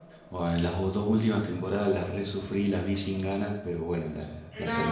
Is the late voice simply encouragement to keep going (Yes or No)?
No